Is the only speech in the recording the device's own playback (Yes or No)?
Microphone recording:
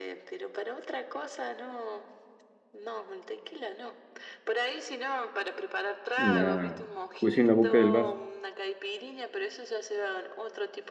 No